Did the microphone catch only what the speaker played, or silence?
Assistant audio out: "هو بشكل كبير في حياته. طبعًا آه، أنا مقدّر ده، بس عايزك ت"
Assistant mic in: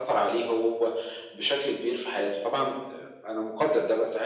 Yes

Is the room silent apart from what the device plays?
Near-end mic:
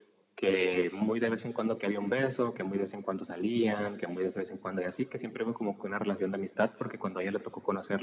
Yes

